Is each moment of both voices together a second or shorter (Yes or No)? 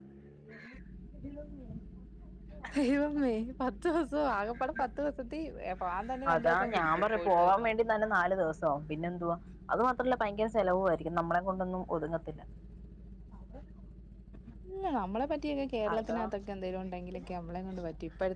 No